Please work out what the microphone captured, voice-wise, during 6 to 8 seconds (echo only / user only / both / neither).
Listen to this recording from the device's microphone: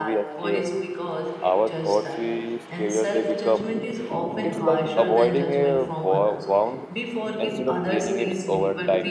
both